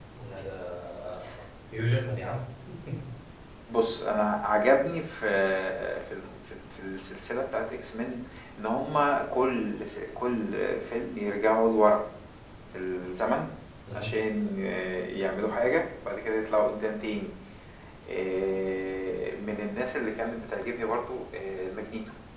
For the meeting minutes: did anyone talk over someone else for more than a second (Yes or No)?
No